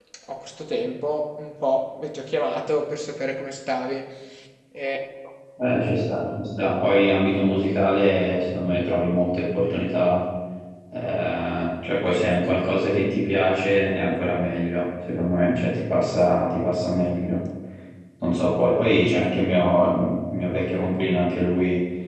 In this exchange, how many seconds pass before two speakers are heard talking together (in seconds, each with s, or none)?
none